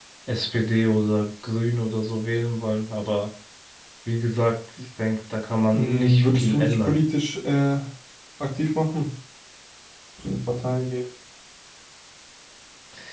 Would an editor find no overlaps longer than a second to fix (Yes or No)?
No